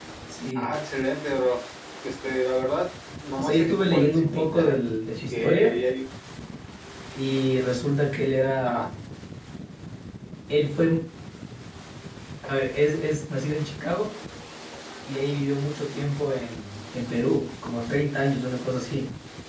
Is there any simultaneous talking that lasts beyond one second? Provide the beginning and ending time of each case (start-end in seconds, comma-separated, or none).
3.4-4.8